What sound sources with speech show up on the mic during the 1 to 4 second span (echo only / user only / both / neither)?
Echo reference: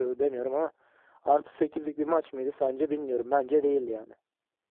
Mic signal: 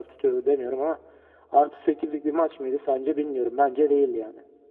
echo only